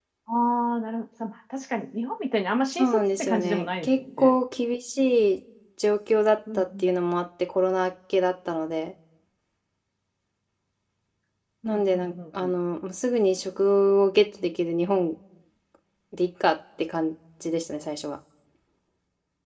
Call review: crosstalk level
present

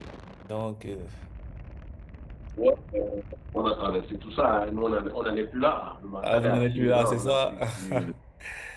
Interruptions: present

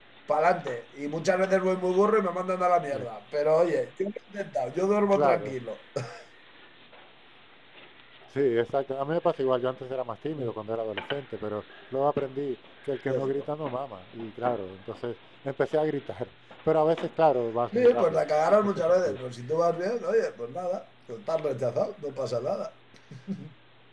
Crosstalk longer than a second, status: none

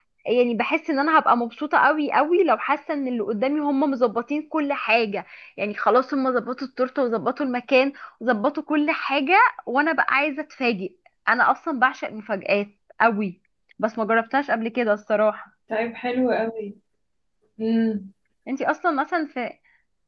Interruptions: none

